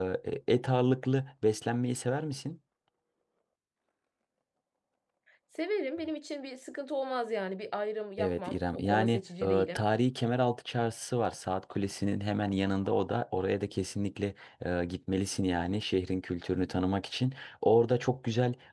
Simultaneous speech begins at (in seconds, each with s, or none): 8.2 s